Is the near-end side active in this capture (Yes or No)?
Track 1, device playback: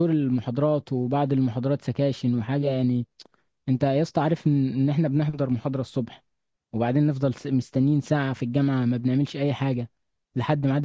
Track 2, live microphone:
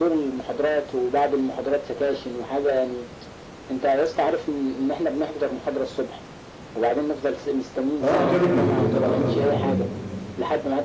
Yes